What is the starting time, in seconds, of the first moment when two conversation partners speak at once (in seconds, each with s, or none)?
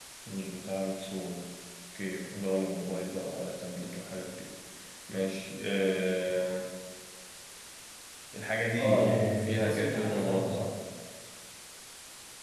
8.8 s